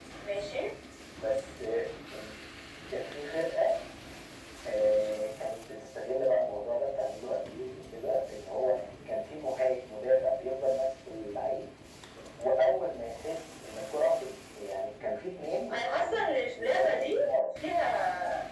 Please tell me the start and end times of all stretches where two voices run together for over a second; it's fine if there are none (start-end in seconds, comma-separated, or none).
15.7-17.3